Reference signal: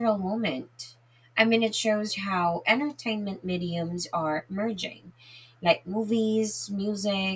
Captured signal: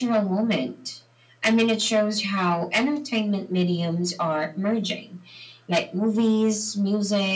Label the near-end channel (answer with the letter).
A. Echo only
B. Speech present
A